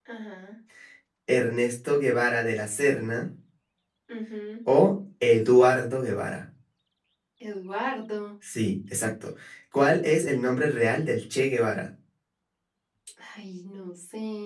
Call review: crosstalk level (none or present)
none